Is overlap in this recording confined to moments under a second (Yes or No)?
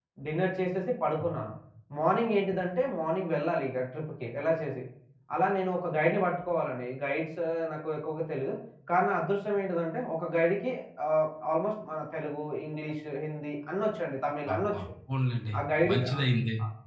Yes